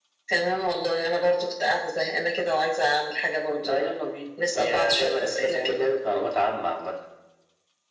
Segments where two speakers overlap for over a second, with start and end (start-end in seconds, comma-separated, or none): 4.5-5.9